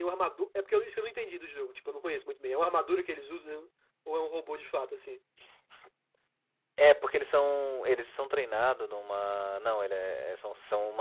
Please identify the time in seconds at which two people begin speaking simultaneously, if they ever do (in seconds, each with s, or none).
none